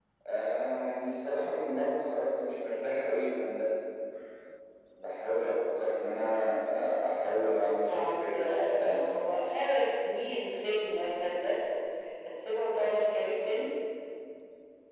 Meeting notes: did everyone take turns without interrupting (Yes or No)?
No